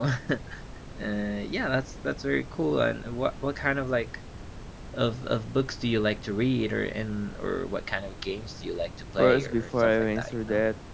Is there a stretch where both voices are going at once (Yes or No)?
Yes